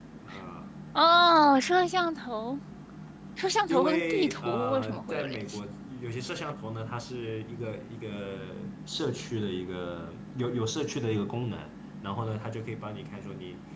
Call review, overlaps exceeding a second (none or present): present